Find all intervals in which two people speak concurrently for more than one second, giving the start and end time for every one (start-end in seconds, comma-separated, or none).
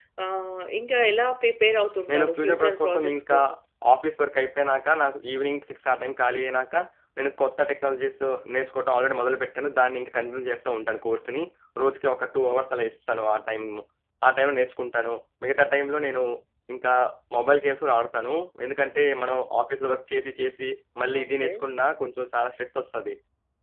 2.1-3.4